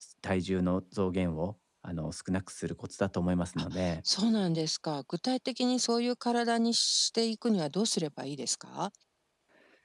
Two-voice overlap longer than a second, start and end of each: none

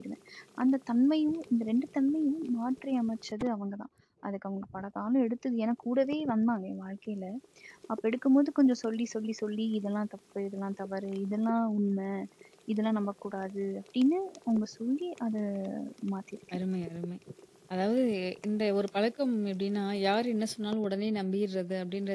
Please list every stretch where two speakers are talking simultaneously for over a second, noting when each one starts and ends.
none

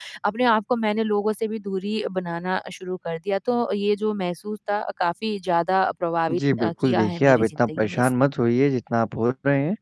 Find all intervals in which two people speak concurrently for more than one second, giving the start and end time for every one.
6.3-8.1

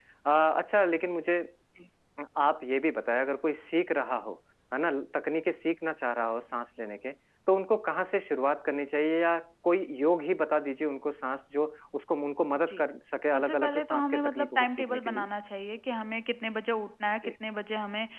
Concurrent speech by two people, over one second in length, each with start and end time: 13.3-15.3

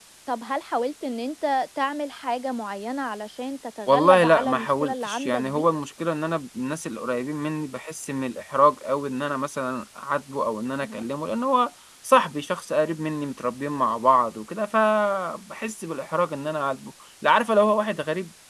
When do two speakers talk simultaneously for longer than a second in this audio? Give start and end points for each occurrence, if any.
3.9-5.7

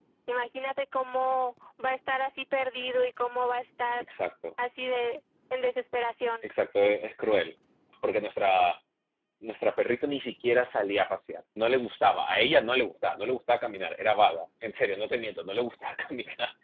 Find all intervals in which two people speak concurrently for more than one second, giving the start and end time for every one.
none

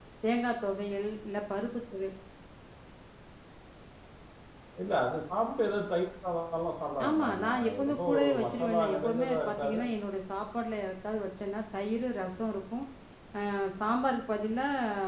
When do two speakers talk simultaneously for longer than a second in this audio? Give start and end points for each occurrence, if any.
7.1-9.8

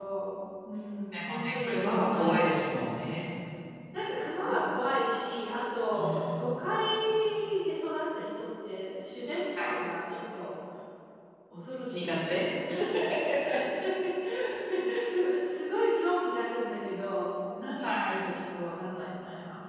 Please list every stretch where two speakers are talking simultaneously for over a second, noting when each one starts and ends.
1.1-2.5

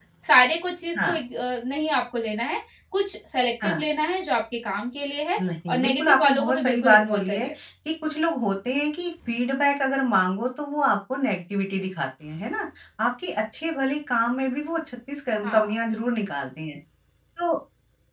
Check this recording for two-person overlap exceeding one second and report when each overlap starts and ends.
5.7-7.5

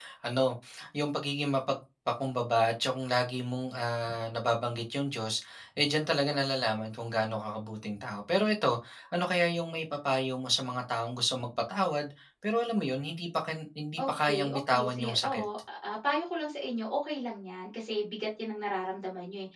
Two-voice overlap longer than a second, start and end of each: 14.0-15.4

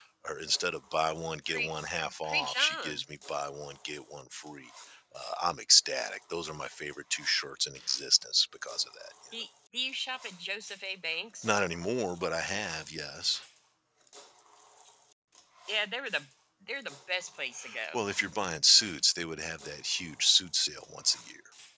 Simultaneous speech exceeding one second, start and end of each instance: 1.5-3.0

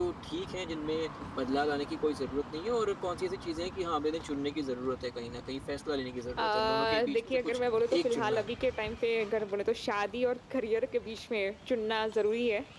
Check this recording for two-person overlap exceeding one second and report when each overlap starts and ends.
6.4-7.6

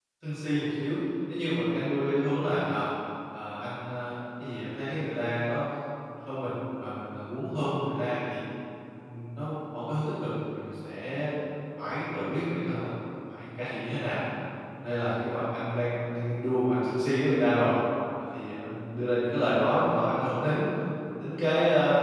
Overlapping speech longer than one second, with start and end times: none

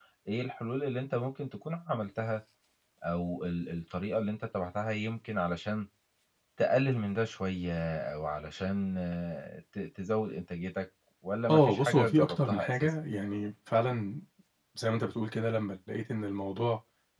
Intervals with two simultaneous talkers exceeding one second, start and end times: 11.5-12.9

